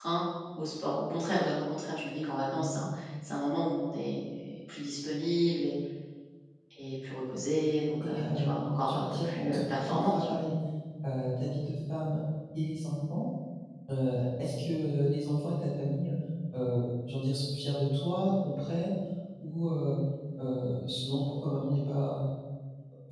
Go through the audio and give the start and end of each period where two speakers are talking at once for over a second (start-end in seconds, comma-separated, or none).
8.8-10.3